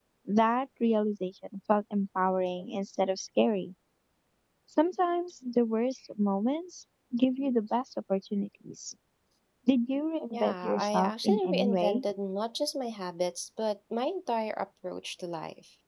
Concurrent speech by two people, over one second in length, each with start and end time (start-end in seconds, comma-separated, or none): 10.3-12.0